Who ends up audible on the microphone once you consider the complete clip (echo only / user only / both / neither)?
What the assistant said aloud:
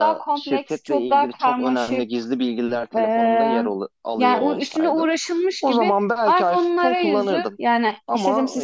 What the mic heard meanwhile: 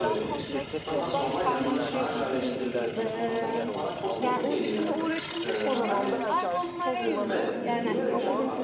both